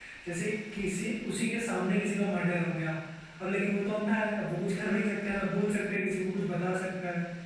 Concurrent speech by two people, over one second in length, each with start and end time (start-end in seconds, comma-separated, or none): none